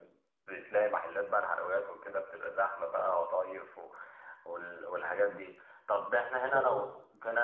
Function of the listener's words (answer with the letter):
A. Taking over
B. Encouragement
B